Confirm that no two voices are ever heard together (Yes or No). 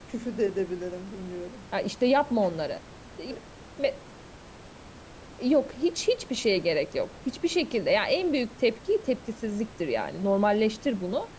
Yes